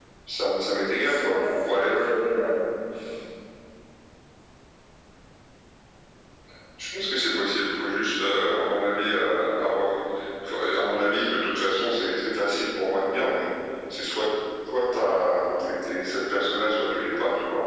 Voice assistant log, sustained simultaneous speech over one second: present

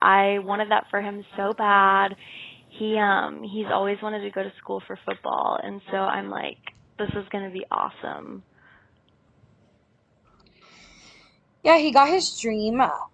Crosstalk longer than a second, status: none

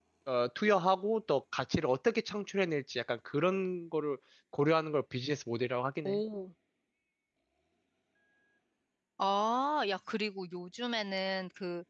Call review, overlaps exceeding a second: none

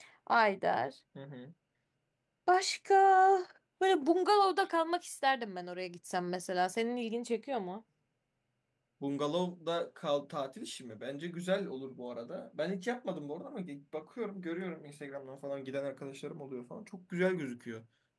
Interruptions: none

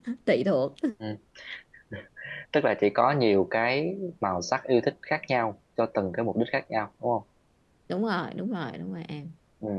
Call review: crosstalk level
none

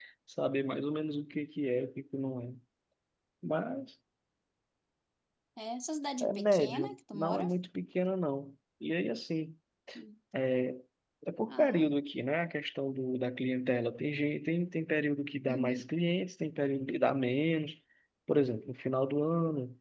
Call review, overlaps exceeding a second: present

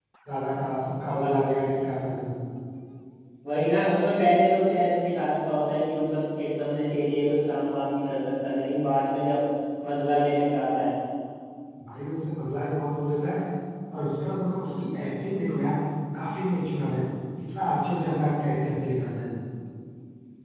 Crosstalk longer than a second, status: none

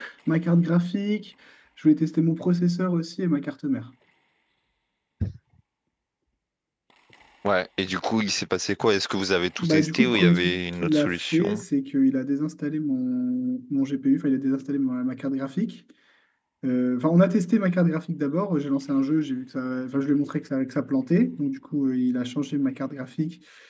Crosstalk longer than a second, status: present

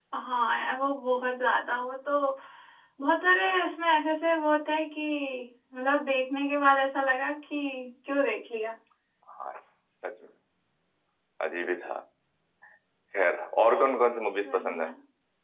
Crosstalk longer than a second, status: none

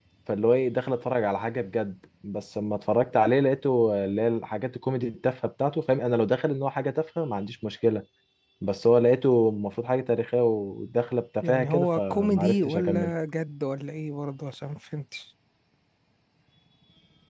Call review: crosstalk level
present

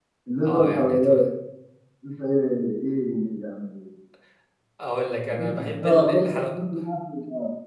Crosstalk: present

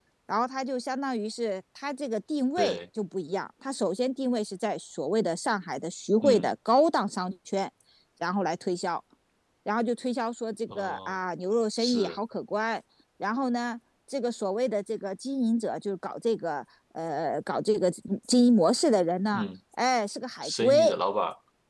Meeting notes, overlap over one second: none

